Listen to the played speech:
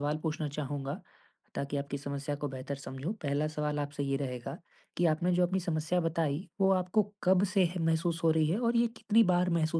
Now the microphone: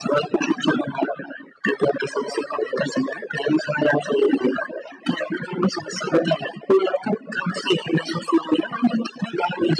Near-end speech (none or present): none